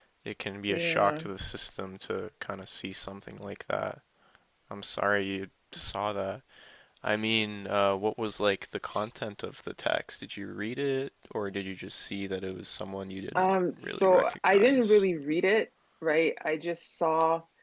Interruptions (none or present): present